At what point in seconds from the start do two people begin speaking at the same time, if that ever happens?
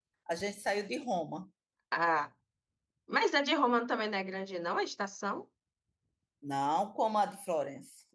none

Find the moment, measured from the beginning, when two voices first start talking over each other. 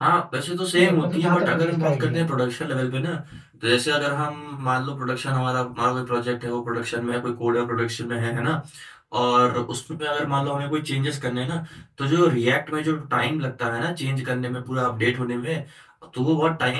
0.8 s

